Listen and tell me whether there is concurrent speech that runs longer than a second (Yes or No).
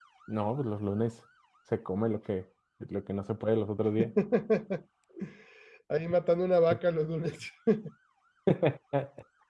No